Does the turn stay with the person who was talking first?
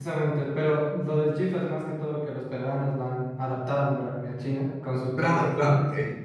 No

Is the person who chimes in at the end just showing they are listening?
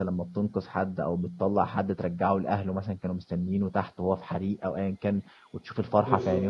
Yes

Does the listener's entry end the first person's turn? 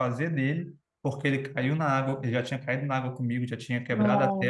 No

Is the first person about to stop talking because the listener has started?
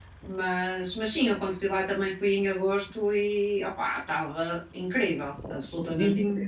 Yes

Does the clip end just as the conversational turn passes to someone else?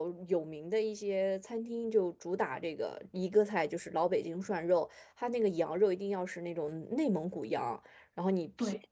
No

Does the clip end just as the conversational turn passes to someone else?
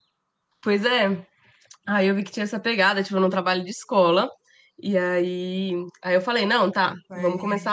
No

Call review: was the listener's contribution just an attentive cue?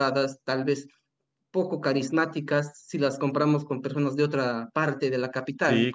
No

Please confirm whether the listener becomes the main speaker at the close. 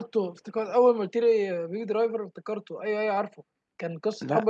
No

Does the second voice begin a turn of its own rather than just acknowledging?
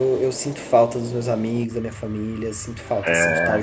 Yes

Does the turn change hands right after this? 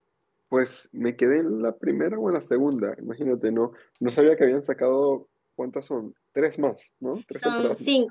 Yes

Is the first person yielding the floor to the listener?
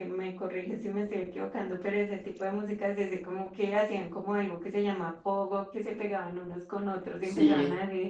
No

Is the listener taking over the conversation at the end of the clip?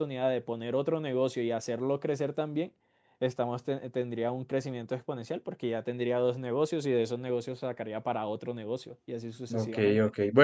Yes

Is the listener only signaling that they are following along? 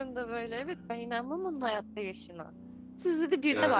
Yes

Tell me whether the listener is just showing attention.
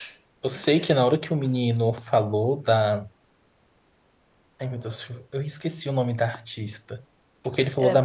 Yes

